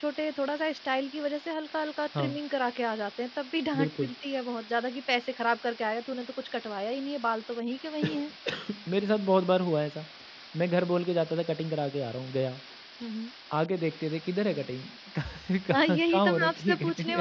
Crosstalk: present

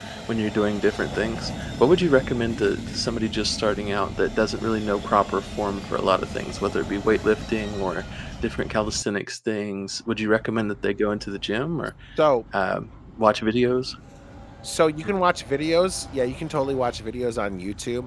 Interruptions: none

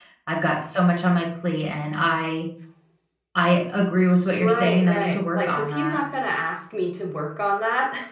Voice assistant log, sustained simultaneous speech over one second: present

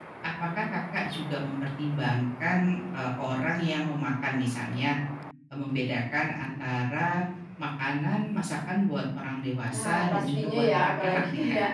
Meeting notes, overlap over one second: present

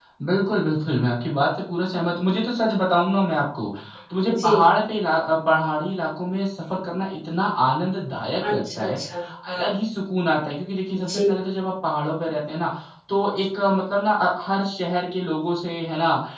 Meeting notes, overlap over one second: none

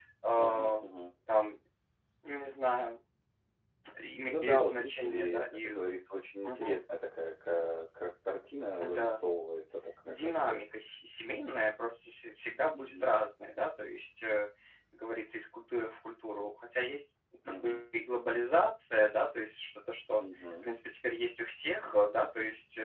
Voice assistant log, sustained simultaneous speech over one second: present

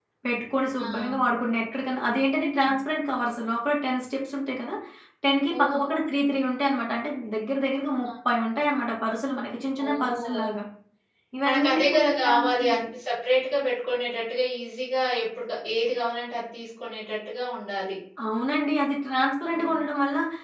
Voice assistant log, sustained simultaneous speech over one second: present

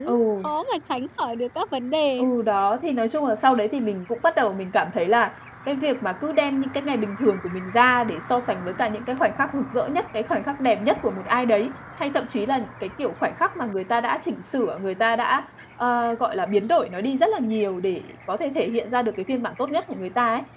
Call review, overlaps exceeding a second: none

